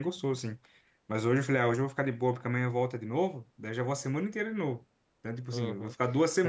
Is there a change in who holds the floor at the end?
Yes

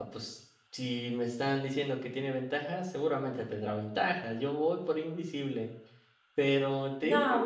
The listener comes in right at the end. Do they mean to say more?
No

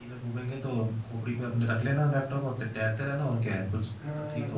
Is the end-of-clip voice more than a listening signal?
Yes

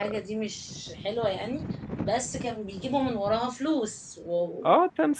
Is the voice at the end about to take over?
Yes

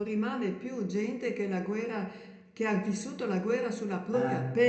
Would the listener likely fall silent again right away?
Yes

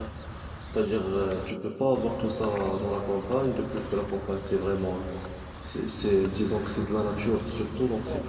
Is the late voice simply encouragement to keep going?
No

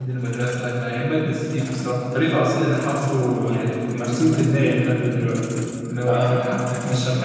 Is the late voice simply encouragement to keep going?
Yes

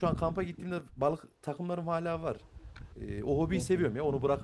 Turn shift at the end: No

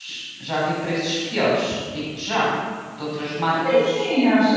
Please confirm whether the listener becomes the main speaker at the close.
Yes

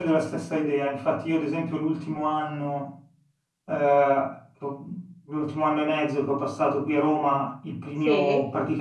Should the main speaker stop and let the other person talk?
No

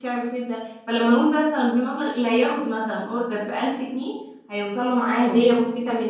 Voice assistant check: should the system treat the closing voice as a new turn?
No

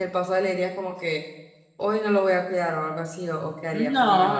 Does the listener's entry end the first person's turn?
Yes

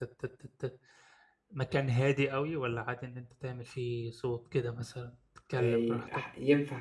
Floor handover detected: Yes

